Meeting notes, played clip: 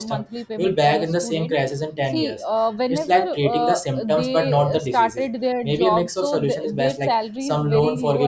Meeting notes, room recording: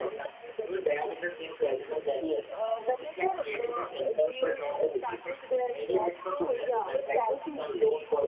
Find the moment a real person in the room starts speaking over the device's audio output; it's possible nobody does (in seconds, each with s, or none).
6.3 s